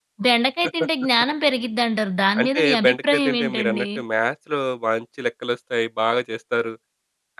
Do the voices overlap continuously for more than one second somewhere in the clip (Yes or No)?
Yes